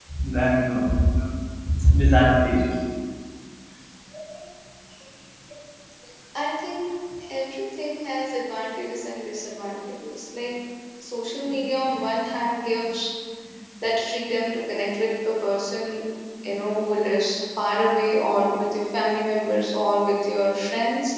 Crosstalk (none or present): none